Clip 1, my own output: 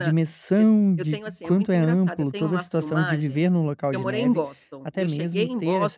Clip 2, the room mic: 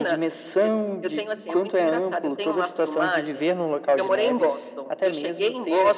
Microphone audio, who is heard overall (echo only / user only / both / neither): echo only